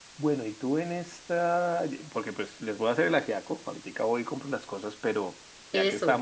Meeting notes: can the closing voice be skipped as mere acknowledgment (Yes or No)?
Yes